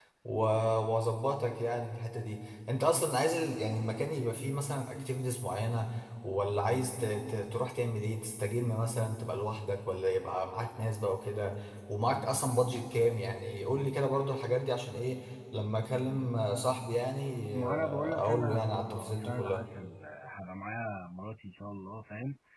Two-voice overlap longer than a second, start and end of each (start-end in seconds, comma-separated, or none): 17.5-19.6